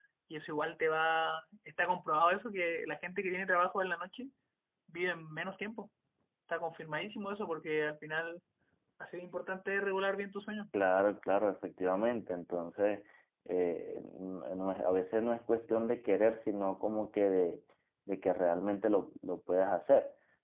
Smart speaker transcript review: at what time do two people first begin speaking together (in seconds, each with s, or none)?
none